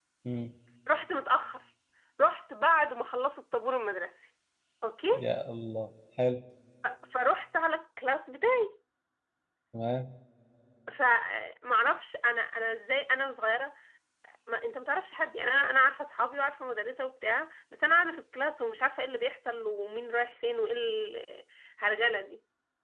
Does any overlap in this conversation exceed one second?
No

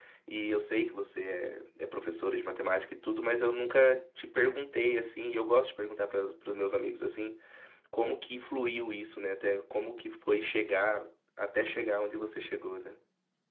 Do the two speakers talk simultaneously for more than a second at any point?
No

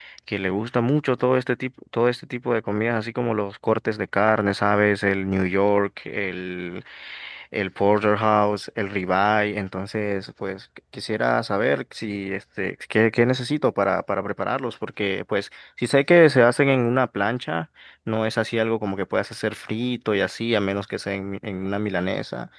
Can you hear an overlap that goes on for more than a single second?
No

